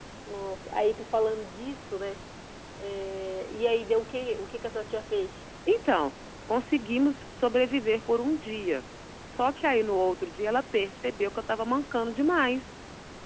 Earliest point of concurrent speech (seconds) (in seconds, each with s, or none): none